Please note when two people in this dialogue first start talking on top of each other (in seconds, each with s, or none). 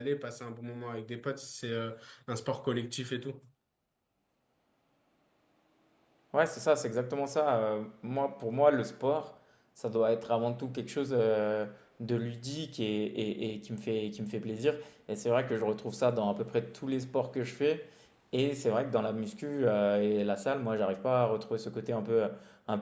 none